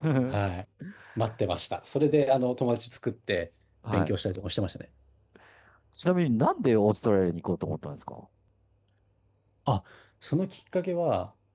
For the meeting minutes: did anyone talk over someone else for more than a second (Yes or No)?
No